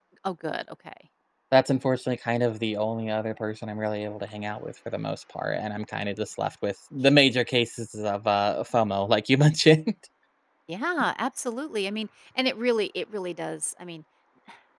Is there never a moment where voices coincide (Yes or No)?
Yes